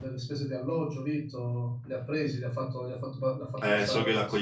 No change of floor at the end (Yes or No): No